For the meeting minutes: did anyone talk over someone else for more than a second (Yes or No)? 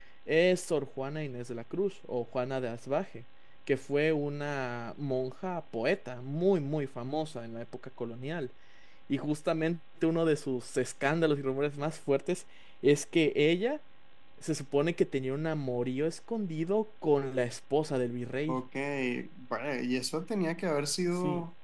No